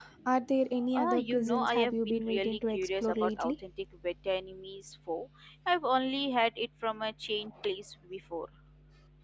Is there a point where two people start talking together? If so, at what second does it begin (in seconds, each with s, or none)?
0.9 s